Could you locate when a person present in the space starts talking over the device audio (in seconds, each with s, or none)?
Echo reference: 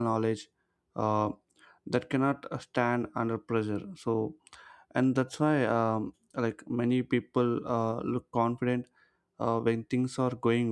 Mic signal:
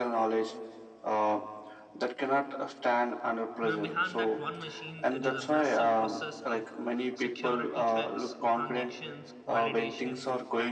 3.6 s